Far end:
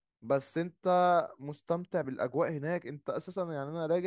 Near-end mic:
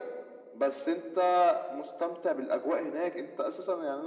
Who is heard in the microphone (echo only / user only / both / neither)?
echo only